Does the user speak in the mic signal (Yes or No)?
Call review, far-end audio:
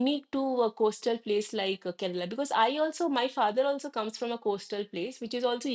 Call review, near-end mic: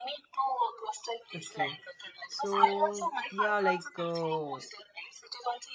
Yes